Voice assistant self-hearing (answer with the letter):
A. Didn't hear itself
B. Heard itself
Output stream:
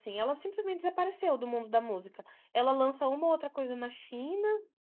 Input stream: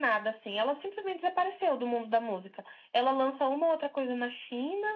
B